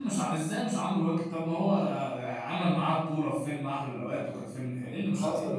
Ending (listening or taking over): taking over